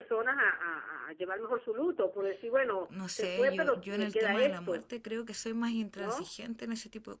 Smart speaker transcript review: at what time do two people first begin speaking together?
3.1 s

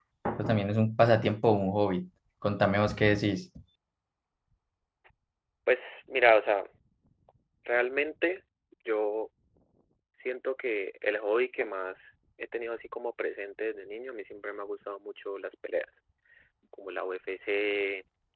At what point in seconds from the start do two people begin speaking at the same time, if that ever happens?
none

